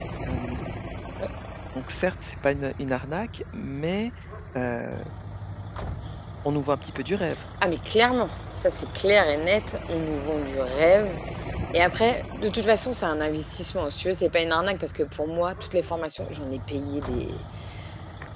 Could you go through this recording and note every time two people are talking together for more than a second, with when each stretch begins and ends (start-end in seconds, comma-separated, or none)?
none